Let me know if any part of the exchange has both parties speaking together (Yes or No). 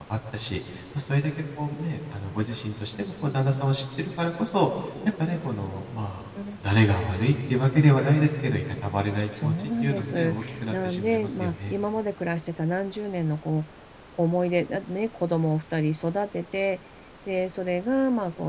Yes